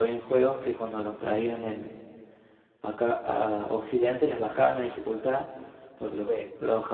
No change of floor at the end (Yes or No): Yes